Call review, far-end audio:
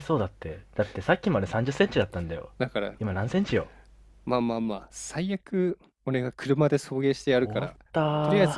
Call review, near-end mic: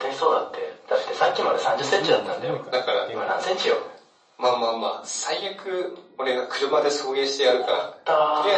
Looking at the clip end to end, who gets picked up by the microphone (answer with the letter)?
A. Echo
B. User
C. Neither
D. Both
D